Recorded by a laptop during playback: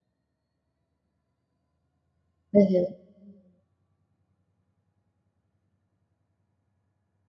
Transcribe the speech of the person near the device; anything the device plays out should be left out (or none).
Aham.